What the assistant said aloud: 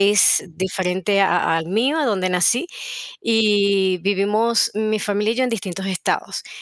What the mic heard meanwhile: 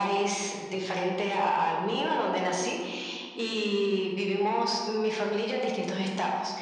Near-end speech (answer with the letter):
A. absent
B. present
A